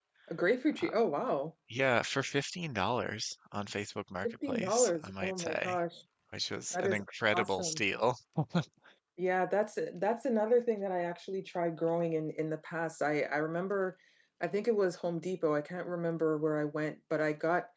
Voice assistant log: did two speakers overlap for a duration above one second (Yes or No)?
Yes